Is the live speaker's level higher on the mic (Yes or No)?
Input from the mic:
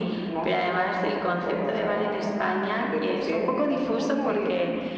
No